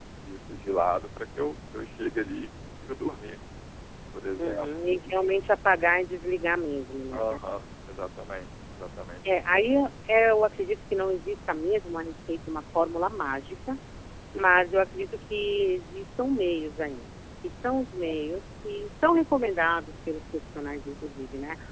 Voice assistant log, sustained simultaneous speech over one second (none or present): none